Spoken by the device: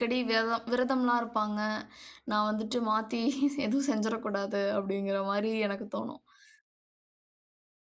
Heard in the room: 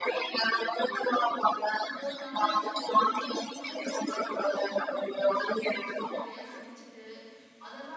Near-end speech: present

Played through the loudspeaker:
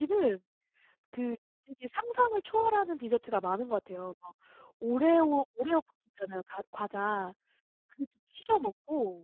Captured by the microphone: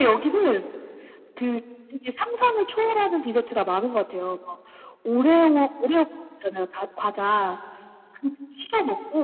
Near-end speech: none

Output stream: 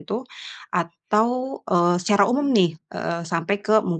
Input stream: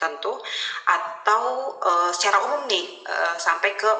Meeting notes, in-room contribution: none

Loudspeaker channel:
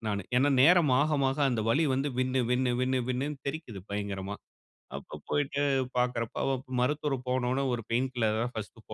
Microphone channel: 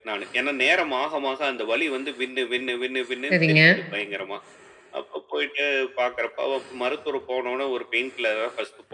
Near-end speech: present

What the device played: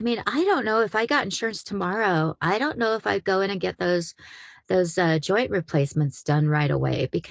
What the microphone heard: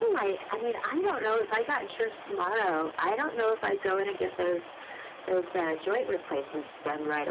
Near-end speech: none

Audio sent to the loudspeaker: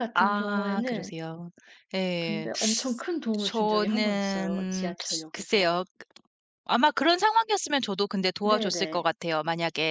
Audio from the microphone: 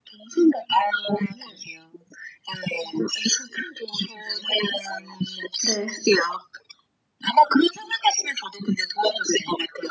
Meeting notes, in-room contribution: present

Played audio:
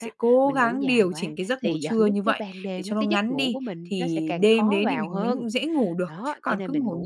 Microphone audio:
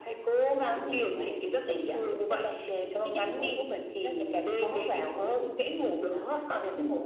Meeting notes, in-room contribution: none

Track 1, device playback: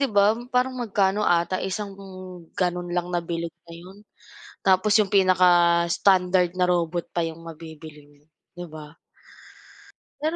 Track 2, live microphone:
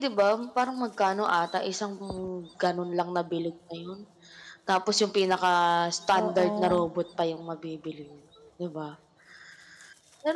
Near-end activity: present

